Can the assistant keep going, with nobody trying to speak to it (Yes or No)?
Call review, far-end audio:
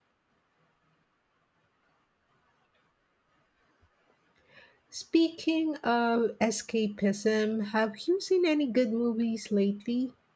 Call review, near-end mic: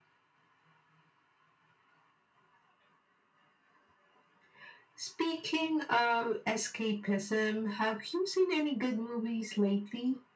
Yes